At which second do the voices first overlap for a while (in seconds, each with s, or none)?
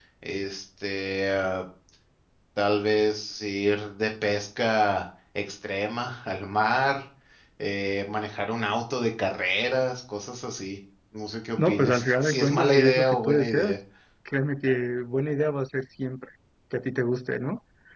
11.6 s